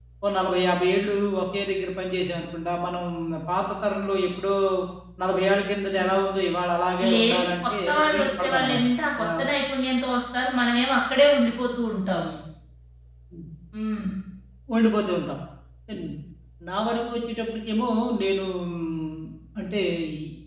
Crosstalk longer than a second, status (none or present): present